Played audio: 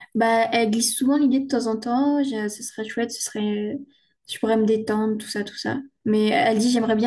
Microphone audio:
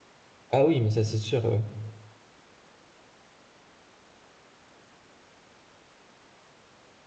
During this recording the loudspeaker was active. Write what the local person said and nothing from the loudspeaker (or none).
Ah oui, mais ça, c'est sûr, ouais.